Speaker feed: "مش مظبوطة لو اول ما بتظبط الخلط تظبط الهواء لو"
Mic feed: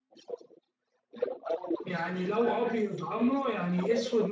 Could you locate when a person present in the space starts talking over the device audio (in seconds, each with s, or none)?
1.8 s